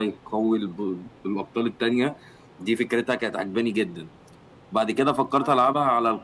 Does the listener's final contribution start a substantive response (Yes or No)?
No